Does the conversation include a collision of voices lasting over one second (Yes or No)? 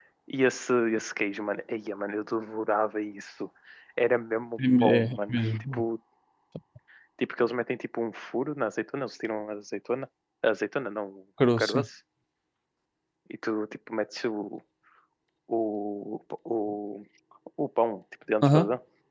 Yes